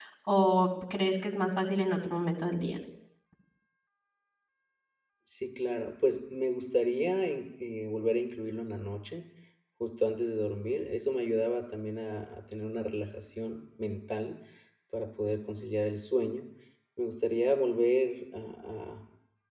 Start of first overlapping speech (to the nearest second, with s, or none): none